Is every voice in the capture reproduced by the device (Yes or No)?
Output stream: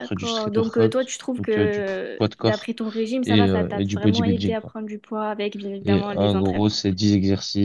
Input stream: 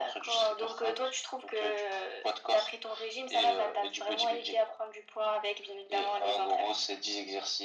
Yes